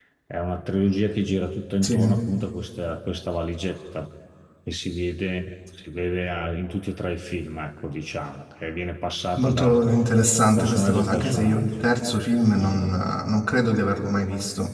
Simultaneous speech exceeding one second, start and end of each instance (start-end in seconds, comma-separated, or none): 10.6-11.9